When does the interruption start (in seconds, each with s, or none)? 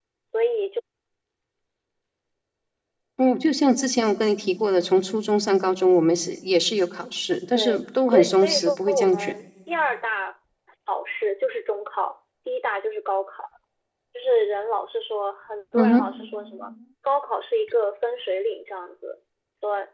7.5 s